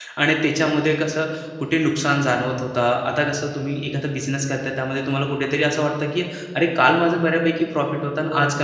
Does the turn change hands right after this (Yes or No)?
Yes